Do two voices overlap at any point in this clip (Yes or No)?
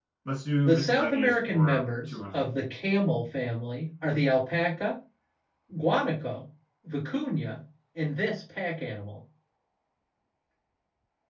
Yes